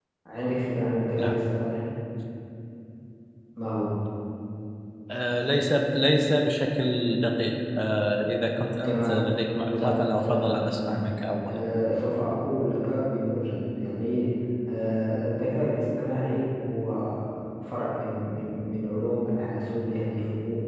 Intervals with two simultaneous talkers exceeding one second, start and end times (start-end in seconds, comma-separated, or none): 9.8-11.0